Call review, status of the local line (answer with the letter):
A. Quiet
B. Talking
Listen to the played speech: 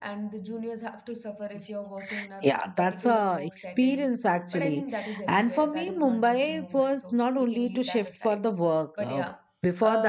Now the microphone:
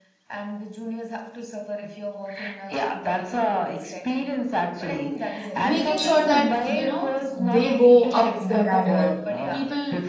B